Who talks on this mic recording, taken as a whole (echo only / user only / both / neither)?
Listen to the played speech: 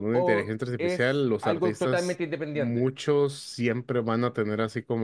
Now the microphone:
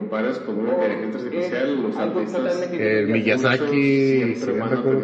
both